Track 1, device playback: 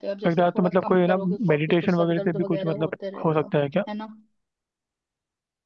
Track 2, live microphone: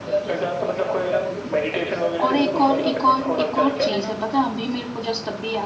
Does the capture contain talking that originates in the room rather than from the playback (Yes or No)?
Yes